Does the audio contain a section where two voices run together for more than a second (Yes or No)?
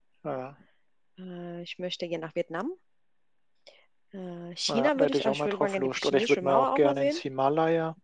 Yes